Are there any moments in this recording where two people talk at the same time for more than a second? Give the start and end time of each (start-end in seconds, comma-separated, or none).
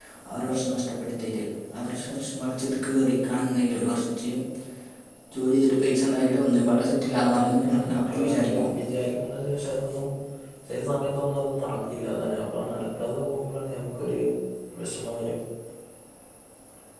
7.2-8.7